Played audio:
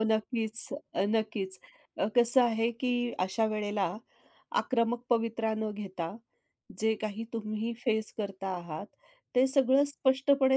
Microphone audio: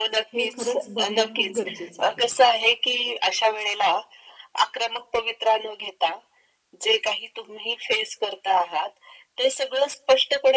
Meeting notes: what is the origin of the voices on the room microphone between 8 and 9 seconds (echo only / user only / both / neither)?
echo only